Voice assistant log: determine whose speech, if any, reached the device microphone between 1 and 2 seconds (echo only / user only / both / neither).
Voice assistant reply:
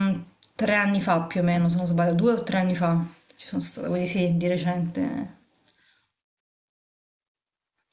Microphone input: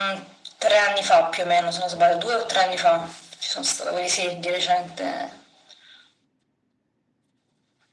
echo only